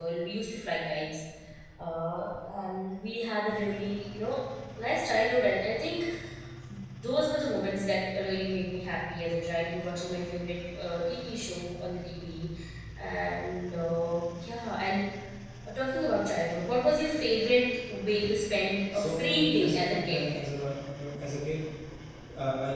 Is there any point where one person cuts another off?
Yes, from 18.9 s

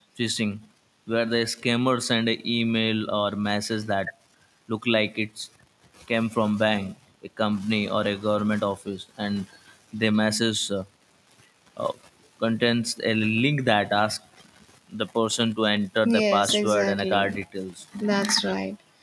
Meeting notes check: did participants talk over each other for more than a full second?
Yes, from 16.0 s

